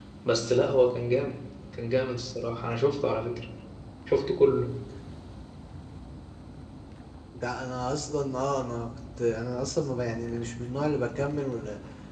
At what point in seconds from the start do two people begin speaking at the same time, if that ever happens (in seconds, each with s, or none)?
none